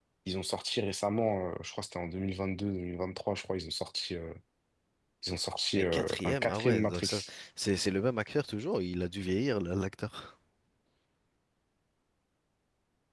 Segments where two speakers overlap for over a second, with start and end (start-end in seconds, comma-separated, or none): 5.8-7.3